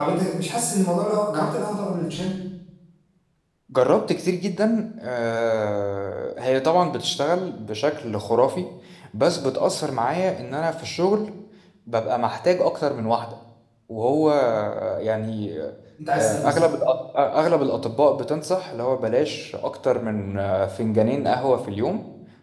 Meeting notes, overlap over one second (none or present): none